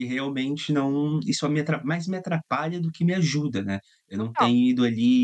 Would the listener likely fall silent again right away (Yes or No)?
Yes